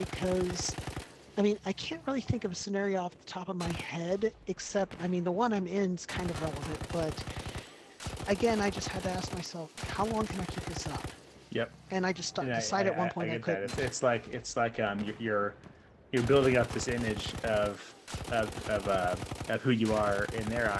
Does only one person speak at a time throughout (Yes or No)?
No